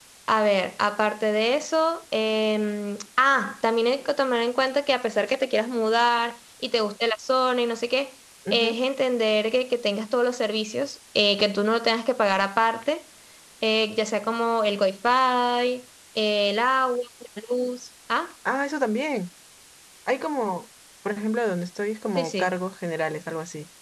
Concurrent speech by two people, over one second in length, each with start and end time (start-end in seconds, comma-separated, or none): none